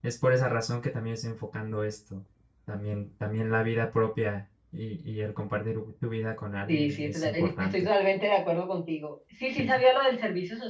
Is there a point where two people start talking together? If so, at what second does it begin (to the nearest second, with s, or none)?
7 s